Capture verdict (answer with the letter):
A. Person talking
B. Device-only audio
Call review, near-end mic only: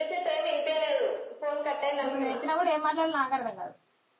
A